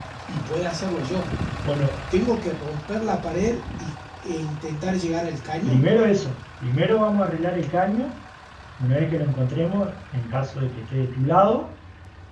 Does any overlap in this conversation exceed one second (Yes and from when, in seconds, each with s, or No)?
No